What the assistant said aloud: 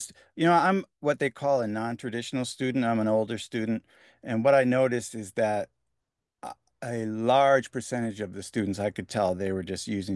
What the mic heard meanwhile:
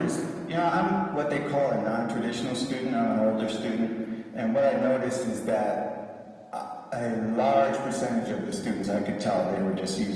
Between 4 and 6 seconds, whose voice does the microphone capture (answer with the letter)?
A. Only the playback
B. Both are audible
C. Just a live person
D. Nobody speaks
A